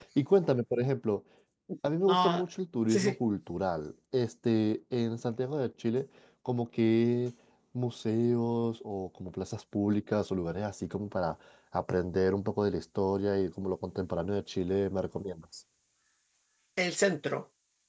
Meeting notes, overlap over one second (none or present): none